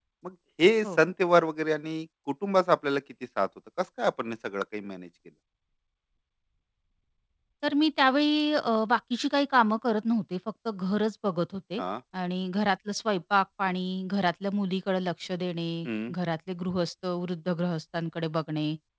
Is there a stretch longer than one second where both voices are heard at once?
No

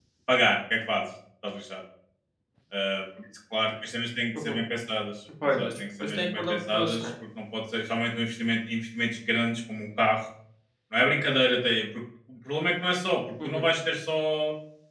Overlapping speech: Yes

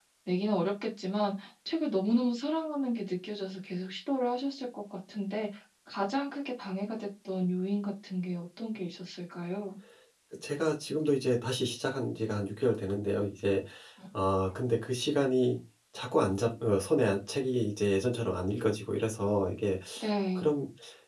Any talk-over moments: No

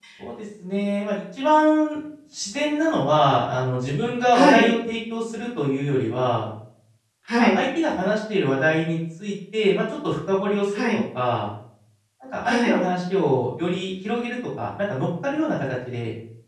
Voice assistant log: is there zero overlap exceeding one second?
Yes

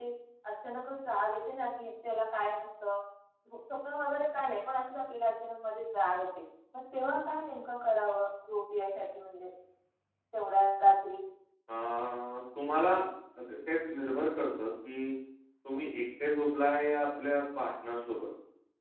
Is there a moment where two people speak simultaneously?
No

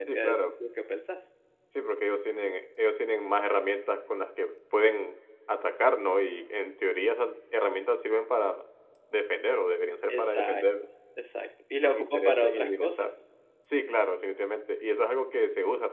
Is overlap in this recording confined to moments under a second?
No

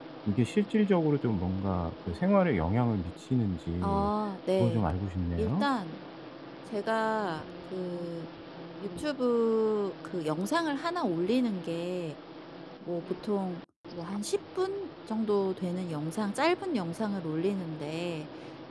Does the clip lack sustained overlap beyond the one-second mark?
Yes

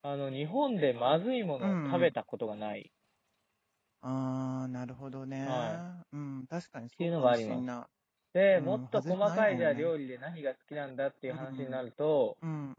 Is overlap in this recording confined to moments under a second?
No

